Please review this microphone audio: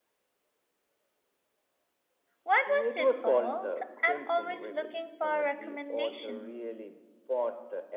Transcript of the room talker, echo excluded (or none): What was it called? I'm always looking for a recommendation.